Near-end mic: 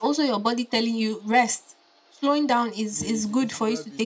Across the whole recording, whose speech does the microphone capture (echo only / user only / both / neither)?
both